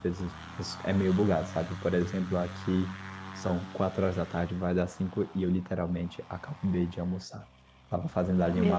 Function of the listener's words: listening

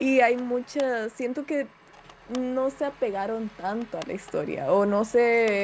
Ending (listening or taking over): listening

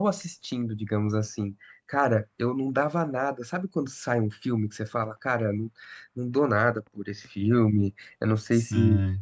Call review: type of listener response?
listening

